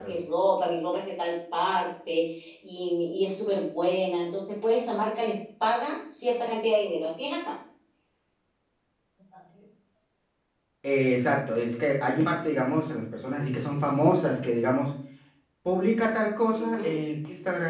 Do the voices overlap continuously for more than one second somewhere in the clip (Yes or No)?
No